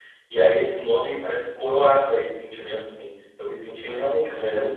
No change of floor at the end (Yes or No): Yes